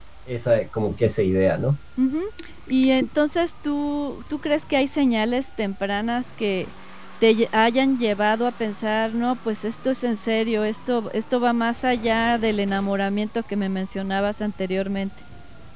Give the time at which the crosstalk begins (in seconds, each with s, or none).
none